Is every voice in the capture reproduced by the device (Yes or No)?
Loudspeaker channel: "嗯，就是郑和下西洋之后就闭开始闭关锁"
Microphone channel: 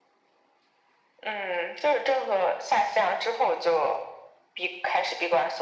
Yes